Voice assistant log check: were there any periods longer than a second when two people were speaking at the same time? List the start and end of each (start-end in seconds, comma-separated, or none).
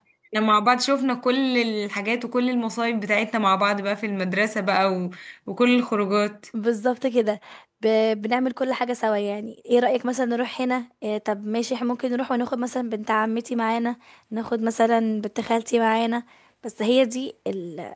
none